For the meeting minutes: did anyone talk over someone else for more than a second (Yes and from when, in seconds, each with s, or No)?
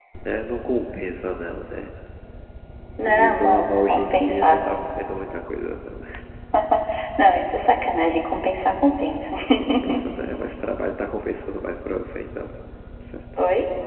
Yes, from 3.0 s